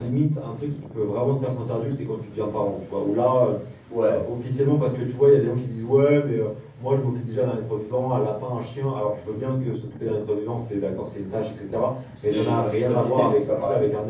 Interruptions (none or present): present